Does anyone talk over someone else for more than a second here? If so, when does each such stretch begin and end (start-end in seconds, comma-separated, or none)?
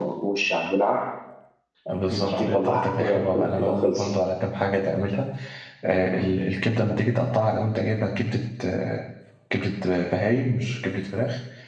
2.1-4.1